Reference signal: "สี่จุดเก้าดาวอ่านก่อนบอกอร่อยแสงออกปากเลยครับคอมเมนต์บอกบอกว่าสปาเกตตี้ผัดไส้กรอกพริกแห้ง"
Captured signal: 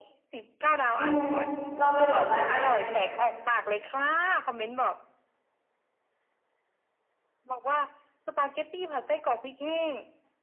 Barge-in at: 1.0 s

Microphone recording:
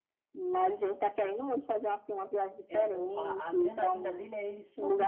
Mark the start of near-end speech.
2.7 s

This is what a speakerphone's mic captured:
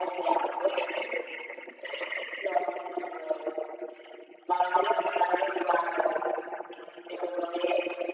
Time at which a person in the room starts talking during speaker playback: none

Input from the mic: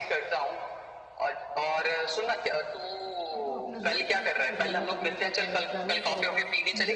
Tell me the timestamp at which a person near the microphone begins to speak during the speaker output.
3.3 s

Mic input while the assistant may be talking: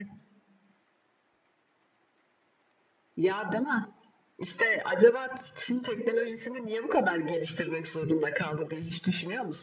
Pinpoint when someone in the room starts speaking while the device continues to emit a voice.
none

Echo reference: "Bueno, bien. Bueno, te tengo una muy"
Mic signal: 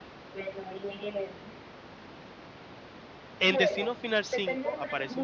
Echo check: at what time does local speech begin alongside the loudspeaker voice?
3.4 s

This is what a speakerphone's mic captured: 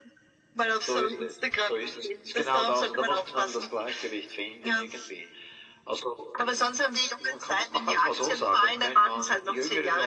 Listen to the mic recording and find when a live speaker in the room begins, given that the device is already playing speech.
none

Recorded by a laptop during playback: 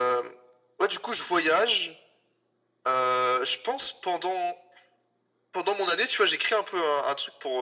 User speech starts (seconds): none

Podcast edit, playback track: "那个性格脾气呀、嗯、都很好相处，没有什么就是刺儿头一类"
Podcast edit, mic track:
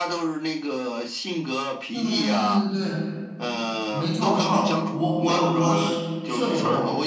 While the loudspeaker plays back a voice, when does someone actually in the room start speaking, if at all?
1.9 s

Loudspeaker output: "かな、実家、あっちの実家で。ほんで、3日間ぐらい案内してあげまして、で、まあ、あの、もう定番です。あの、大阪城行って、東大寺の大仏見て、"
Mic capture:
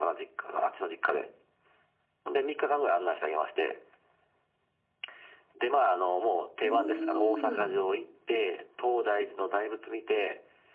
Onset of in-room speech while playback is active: 6.6 s

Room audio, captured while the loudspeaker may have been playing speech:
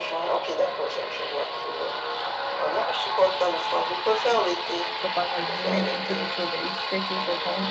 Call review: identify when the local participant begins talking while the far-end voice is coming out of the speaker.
4.8 s

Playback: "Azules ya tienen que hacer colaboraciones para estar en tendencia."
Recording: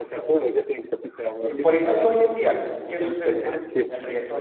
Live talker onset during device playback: 1.4 s

